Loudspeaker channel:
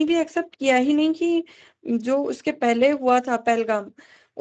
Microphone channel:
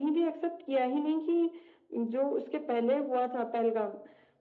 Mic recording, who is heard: echo only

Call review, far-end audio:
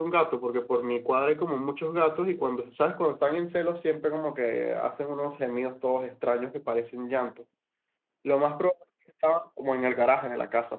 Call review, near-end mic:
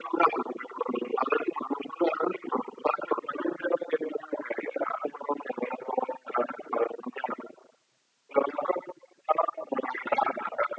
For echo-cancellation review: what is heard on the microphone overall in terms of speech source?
echo only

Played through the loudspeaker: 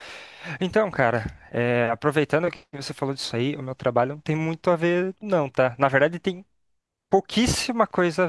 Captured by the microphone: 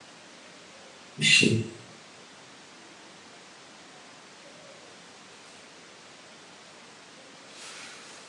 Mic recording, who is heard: user only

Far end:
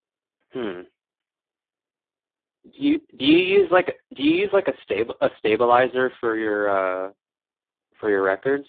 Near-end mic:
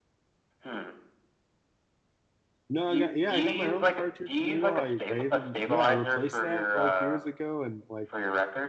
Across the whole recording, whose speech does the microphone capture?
both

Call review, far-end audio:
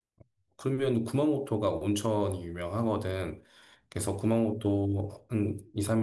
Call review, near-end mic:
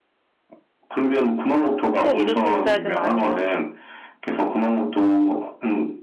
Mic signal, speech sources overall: both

